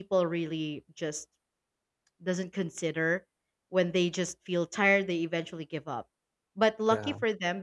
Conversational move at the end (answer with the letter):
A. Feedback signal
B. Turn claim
A